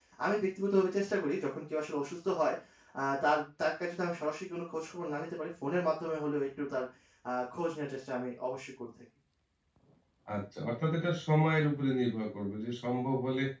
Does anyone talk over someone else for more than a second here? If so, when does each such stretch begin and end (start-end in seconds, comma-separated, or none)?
none